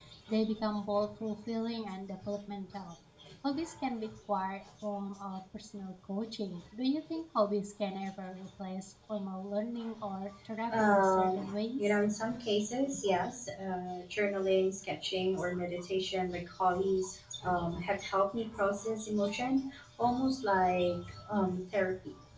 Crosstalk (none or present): present